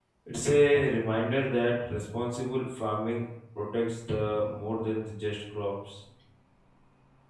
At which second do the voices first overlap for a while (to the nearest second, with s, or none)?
none